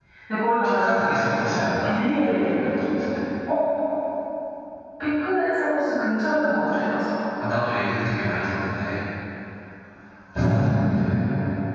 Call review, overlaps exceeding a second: present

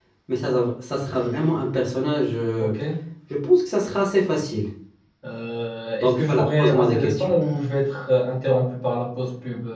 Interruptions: present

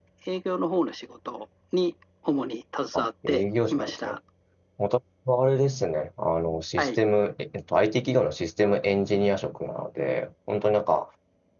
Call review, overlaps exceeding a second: present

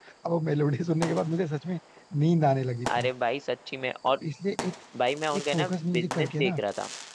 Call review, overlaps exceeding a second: present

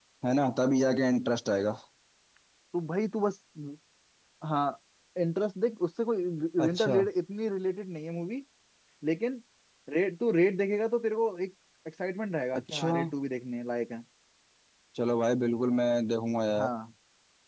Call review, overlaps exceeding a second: none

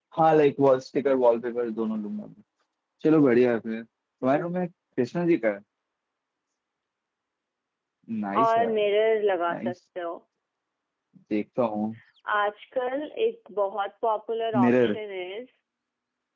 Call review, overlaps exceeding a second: none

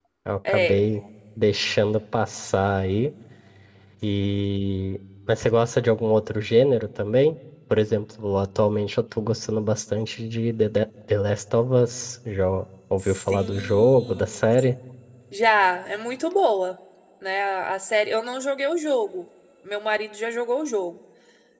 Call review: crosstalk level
present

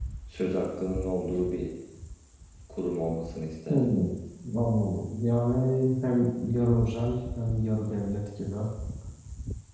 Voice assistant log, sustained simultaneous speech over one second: none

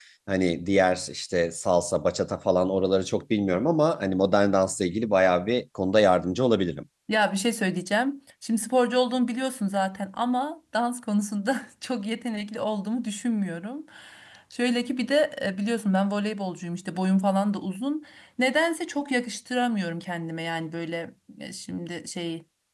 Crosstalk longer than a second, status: none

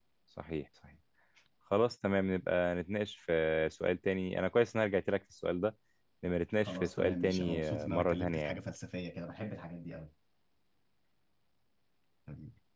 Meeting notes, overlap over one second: present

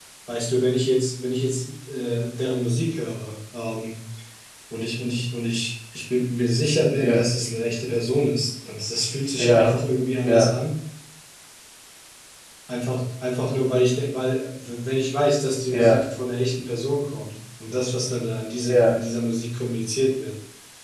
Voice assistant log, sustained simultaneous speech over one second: none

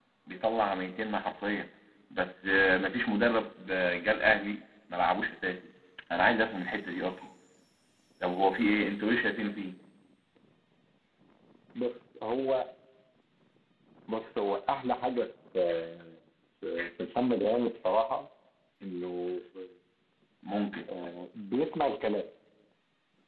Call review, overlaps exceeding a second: none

